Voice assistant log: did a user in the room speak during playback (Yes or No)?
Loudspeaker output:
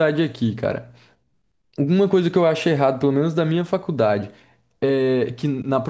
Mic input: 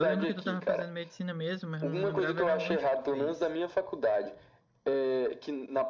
Yes